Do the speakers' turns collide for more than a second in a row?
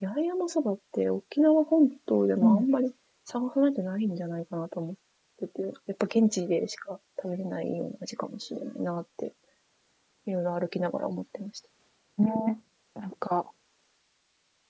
No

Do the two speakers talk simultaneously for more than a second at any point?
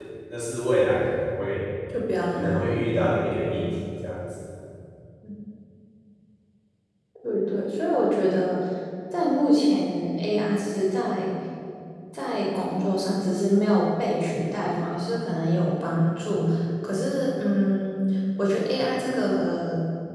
No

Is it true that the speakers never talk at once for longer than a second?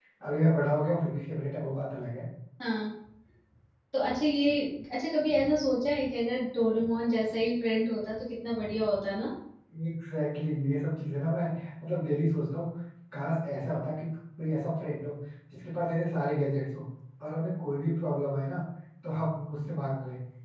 Yes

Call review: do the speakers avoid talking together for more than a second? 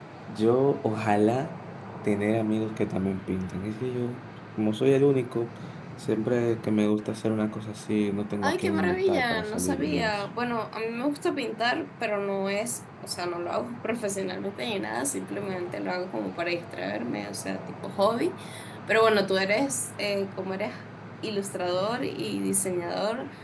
No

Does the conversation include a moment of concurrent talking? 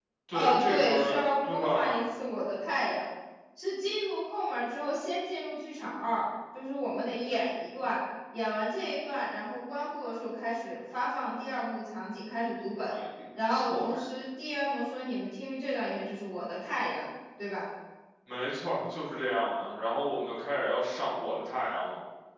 Yes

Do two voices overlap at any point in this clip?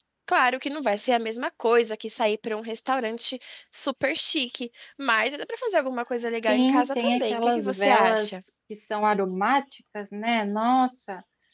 Yes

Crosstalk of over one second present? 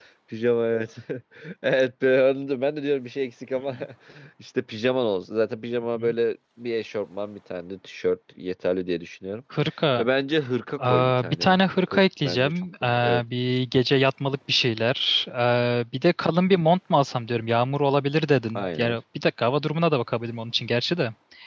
Yes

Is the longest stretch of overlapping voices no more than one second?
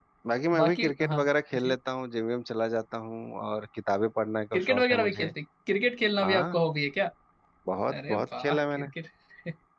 No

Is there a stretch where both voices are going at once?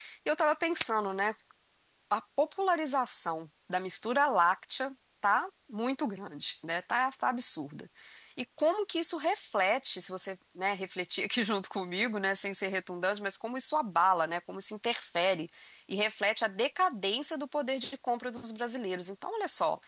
No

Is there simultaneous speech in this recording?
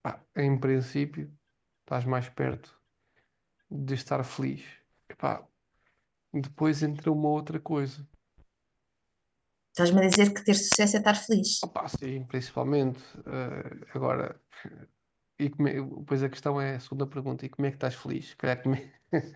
No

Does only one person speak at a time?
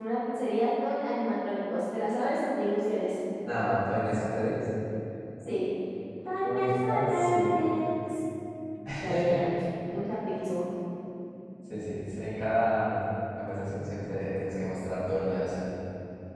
No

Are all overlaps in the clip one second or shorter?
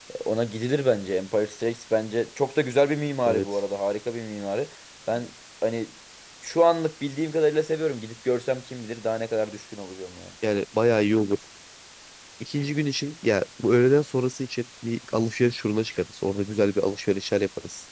Yes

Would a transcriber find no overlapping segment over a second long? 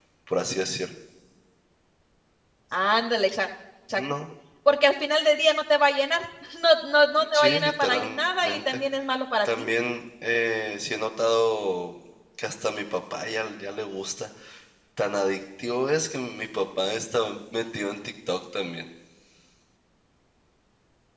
No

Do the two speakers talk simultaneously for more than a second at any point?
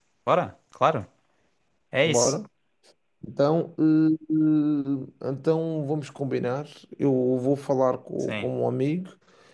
No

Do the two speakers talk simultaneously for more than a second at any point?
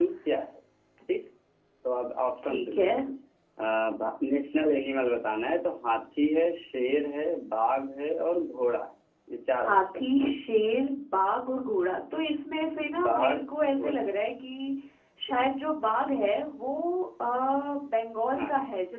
No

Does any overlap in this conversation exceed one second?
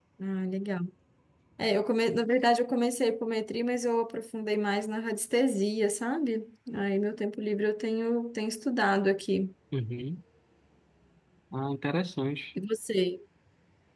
No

